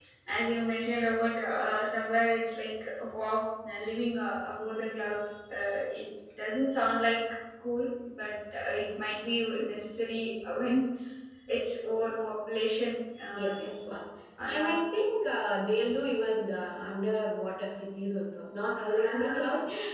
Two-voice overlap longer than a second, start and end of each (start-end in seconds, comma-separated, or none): none